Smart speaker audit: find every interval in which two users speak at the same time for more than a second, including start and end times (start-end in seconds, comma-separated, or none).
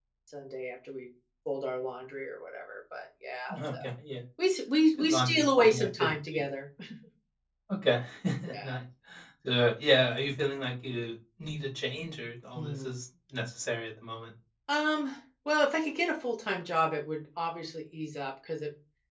5.0-6.4